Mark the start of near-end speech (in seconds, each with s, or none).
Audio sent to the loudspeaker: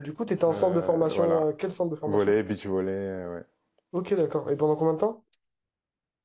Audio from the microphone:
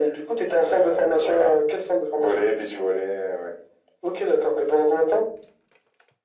none